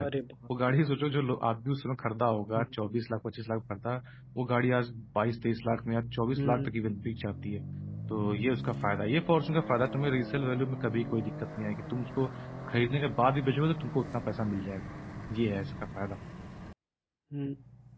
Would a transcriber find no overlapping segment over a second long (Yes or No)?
Yes